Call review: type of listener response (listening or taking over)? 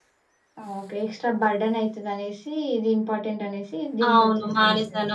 taking over